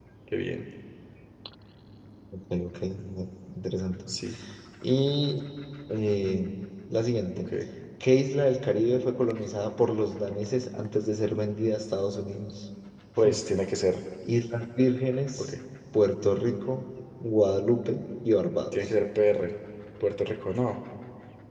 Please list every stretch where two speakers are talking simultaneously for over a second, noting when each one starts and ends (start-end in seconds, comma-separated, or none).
none